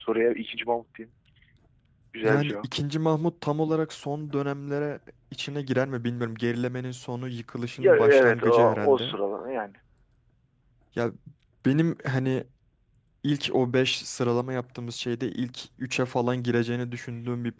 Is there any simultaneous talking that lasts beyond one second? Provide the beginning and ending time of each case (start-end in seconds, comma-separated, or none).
7.8-9.2